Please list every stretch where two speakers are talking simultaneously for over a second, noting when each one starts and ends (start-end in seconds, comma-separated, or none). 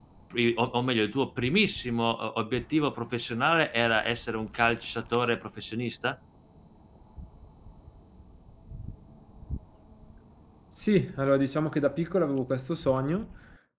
none